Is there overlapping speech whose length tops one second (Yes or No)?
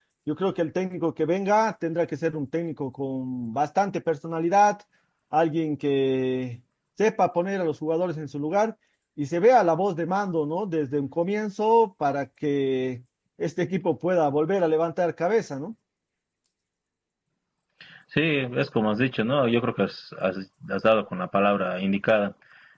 No